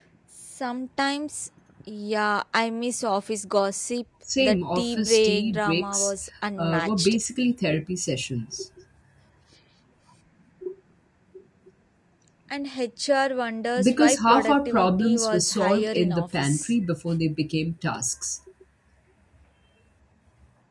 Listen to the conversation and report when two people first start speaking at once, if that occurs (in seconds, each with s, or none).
4.4 s